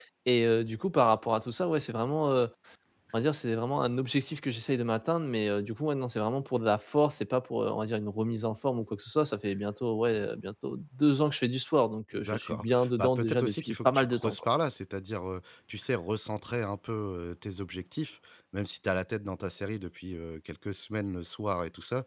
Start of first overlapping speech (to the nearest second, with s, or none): 12 s